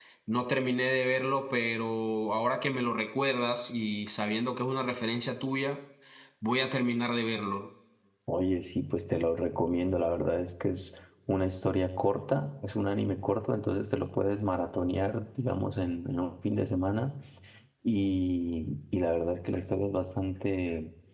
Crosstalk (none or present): none